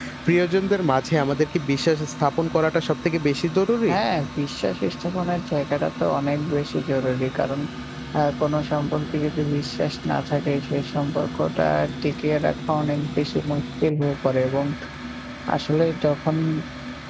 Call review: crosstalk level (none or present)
none